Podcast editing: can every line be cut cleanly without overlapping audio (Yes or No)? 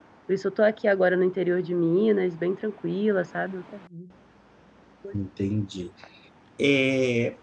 Yes